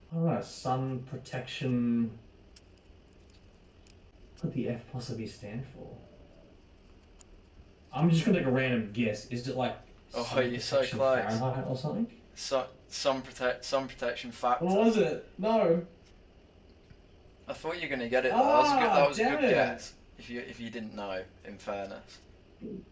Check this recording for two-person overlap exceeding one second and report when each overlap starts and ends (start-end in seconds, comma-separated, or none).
10.1-11.4, 18.3-19.8